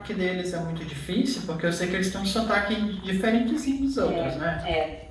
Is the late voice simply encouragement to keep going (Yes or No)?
No